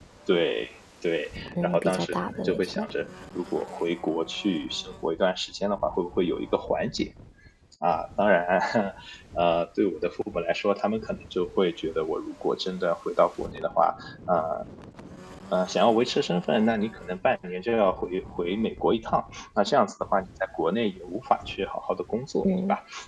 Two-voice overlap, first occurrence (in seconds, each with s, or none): 1.6 s